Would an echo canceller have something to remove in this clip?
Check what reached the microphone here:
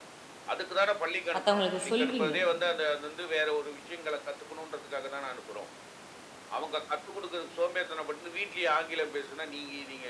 Yes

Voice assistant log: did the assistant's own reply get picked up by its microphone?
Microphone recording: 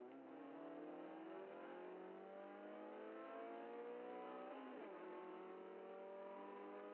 No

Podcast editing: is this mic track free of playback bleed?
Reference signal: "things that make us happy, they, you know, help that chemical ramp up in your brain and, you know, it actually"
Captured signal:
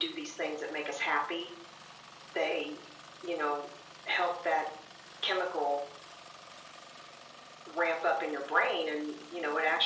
No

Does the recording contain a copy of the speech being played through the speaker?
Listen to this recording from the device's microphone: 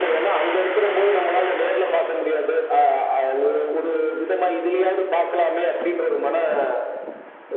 Yes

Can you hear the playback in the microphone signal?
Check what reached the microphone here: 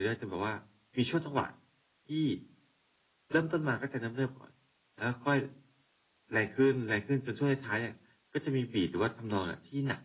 Yes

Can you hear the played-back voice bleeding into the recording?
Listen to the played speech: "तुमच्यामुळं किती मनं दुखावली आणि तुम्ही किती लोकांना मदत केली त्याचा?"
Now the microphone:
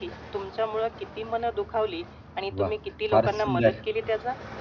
Yes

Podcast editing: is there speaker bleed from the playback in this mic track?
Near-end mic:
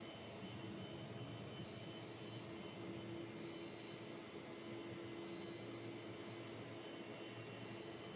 No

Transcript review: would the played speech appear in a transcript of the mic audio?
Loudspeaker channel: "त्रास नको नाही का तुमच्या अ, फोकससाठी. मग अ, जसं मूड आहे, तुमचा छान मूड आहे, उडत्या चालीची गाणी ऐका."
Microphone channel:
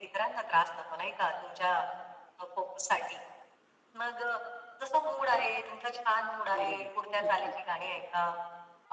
Yes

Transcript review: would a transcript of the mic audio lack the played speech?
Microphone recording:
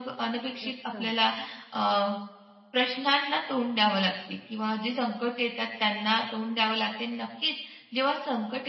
No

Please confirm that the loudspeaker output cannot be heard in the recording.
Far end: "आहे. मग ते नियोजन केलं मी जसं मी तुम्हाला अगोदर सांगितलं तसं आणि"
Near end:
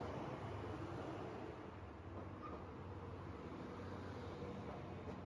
Yes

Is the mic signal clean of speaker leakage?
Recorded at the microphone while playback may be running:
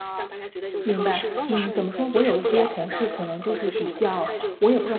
No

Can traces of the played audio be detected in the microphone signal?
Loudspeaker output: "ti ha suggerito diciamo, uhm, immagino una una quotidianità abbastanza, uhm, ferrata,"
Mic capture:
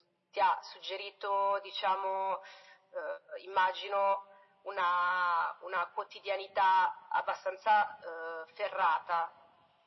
Yes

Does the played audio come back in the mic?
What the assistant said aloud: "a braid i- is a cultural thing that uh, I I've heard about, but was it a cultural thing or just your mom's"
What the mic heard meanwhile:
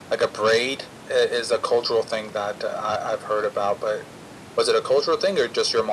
Yes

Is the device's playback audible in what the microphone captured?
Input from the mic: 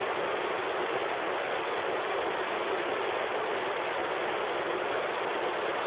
No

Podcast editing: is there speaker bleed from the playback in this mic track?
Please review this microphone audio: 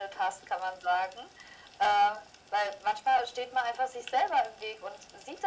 Yes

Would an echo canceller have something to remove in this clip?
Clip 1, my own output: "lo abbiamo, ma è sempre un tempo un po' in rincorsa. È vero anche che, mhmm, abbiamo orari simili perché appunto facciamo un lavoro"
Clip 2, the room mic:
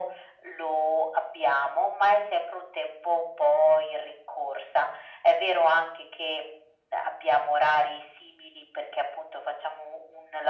Yes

